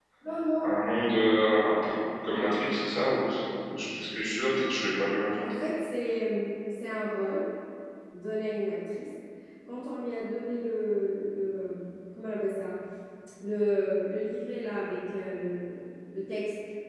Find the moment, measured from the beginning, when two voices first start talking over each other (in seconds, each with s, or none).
none